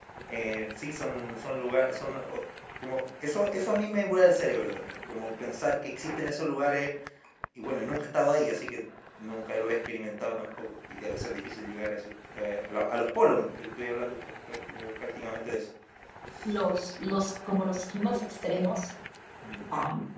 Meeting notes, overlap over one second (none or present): none